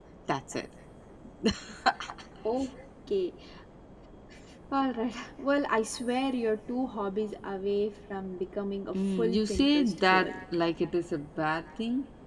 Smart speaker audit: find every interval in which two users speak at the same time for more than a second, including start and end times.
9.0-10.3

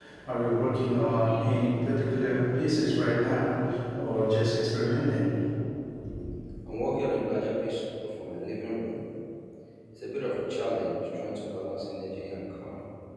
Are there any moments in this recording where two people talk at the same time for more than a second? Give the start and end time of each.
none

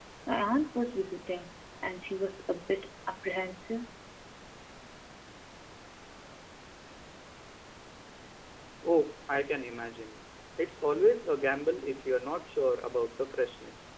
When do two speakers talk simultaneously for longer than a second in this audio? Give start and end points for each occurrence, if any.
none

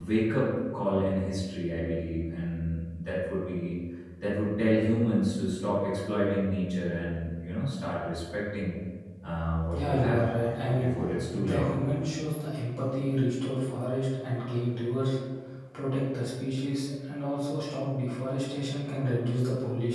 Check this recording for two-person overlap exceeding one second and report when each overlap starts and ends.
none

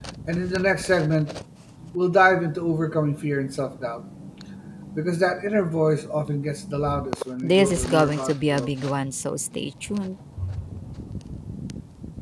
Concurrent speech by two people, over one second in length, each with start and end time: 7.4-8.7

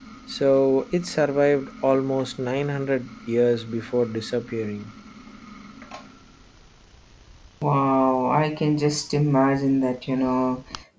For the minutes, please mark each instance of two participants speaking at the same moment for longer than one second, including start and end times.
none

